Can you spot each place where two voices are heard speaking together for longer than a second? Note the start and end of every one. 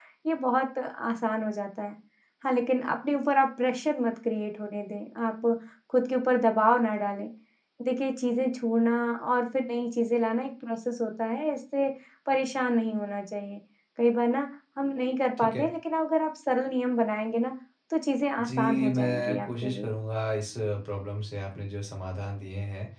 18.4-19.9

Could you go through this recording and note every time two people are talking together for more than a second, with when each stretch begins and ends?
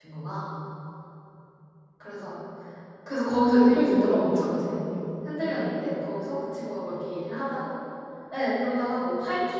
3.6-4.8

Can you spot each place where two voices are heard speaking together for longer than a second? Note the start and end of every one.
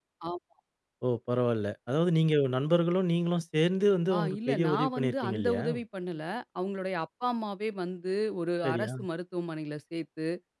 4.2-5.6

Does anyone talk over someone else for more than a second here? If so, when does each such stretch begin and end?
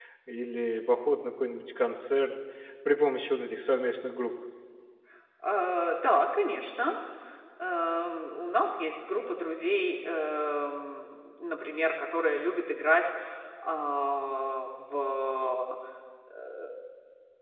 none

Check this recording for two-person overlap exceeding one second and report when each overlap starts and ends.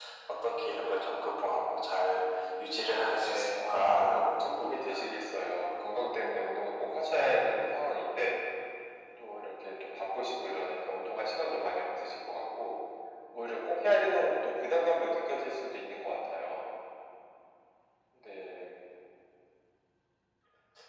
2.8-5.0

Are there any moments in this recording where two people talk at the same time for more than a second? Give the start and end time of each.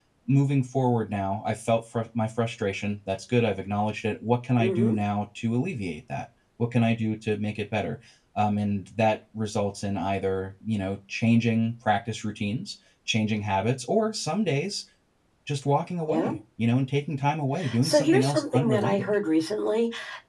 17.8-19.1

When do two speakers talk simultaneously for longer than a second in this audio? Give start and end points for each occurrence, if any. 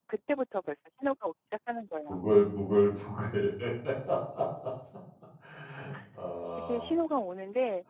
none

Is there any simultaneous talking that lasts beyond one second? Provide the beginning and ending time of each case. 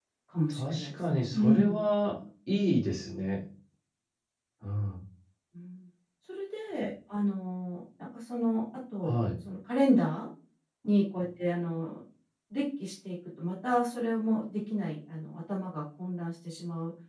0.6-1.8

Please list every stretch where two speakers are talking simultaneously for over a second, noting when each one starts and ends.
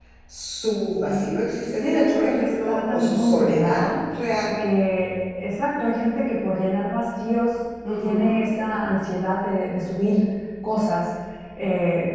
1.8-3.8

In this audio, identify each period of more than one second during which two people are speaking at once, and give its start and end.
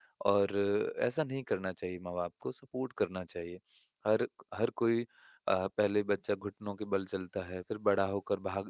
none

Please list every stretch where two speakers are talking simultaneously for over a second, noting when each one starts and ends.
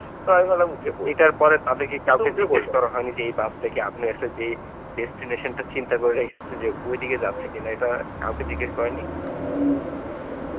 none

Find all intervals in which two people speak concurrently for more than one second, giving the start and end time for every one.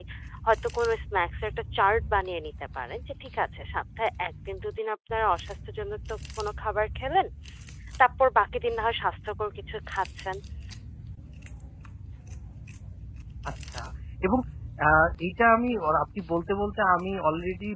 none

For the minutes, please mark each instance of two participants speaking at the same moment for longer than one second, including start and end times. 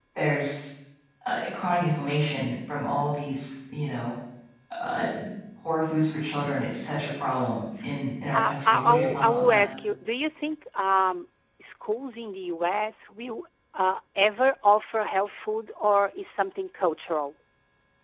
8.3-9.6

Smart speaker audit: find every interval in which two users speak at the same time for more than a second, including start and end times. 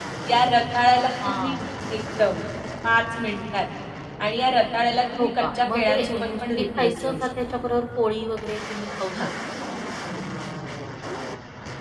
5.2-7.3

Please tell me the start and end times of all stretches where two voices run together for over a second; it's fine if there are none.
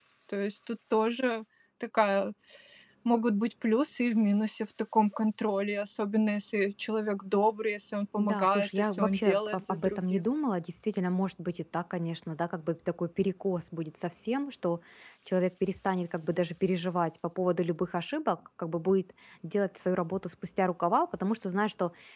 8.2-10.2

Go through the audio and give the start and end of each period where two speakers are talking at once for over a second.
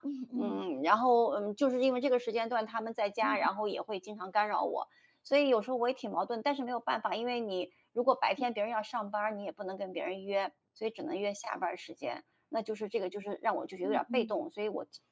none

